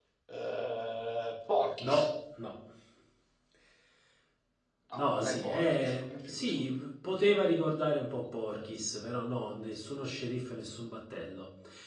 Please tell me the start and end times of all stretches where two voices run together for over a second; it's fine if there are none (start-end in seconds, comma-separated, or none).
4.9-6.6